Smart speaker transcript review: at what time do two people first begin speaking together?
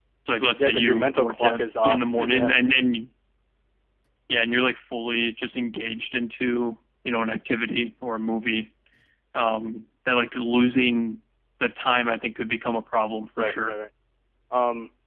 0.6 s

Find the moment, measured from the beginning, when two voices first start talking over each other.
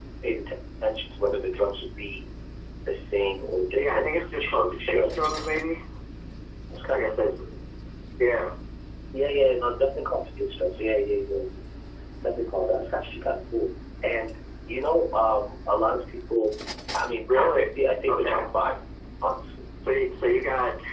3.8 s

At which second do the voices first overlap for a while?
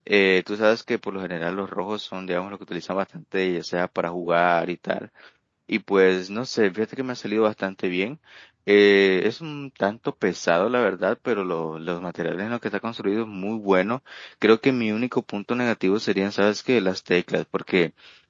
none

